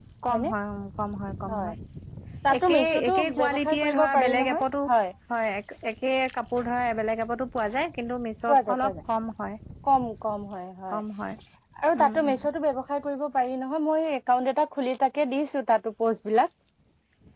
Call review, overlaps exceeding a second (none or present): present